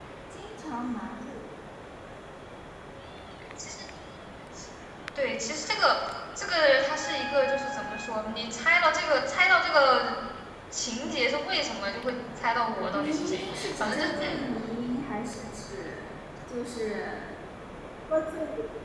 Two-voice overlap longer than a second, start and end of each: 12.9-14.5

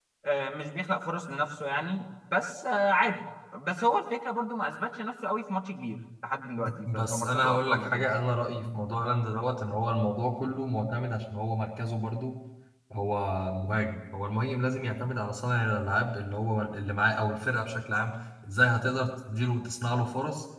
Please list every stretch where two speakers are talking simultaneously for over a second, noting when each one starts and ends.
6.8-8.2

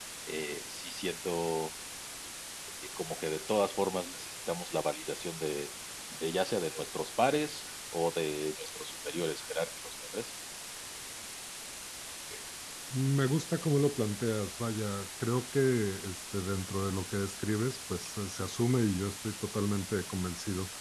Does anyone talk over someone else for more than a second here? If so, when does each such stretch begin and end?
none

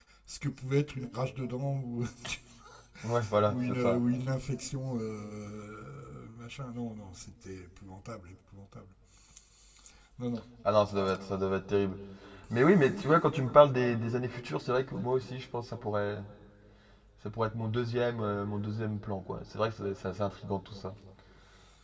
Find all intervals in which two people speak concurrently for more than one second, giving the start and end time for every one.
none

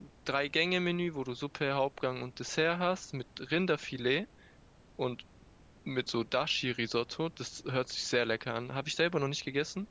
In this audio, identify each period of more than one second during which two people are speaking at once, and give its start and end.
none

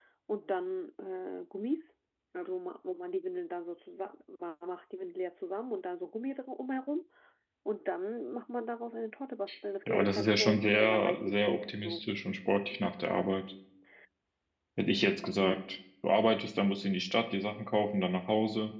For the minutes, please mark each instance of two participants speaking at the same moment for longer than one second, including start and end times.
9.9-12.0

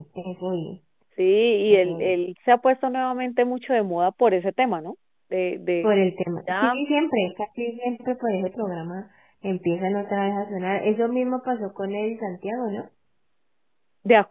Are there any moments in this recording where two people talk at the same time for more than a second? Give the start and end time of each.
none

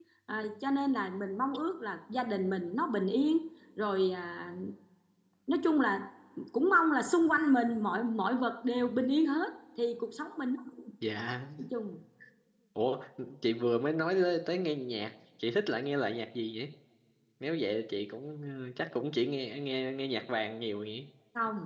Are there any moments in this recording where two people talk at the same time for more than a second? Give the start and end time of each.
none

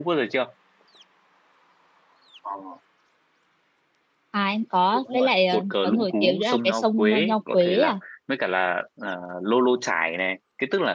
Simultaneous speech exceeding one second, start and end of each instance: 4.9-7.9

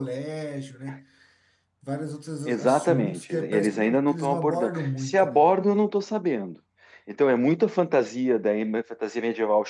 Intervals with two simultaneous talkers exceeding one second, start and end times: 2.4-5.5

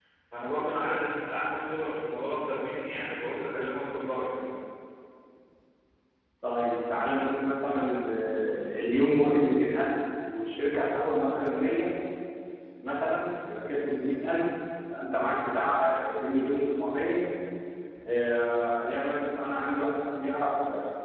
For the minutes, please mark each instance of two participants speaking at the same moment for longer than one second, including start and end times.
none

